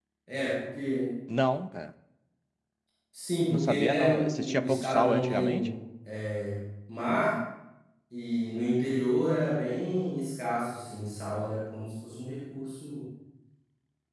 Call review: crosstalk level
present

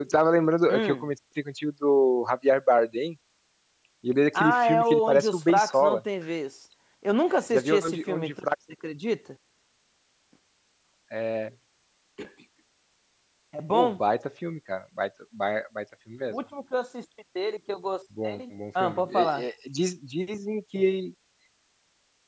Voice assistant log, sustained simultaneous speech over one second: present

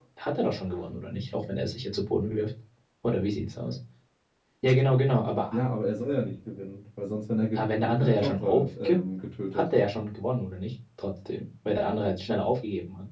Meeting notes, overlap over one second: present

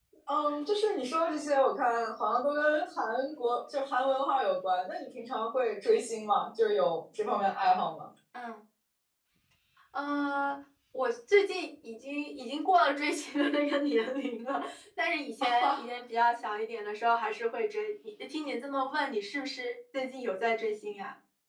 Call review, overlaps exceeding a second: none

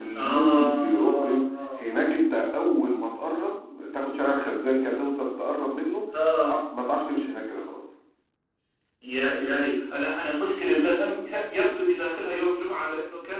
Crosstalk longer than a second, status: present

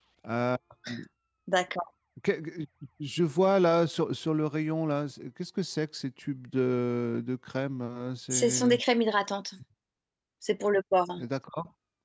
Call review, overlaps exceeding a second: none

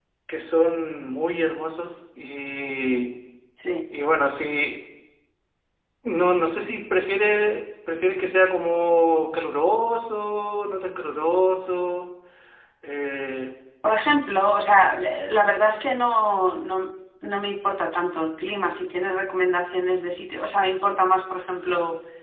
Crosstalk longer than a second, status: none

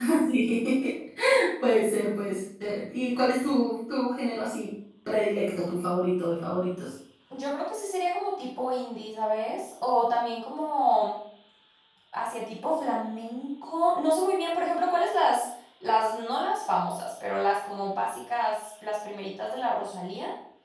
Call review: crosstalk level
none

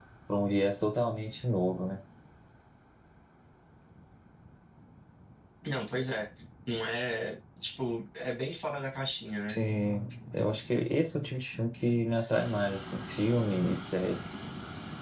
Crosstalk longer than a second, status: none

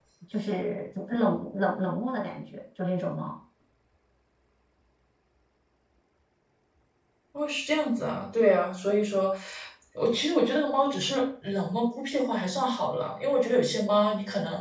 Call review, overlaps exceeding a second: none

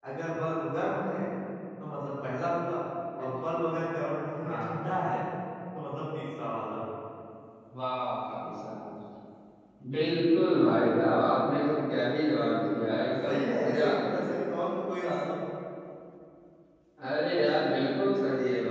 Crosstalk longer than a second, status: present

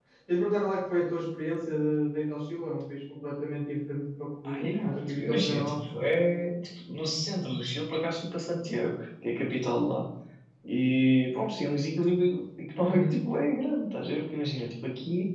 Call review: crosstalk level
present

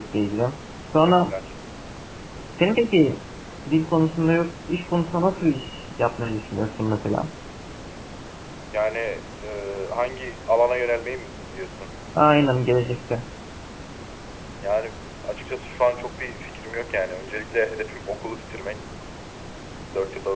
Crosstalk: none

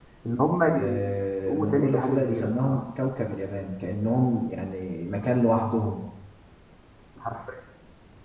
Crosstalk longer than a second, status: present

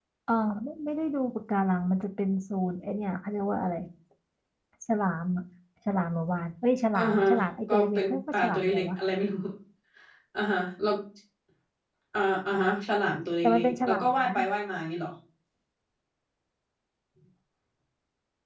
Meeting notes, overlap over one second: present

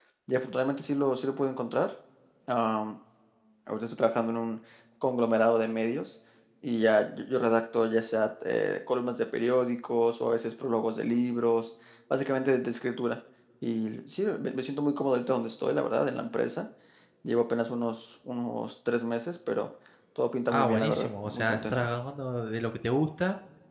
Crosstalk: present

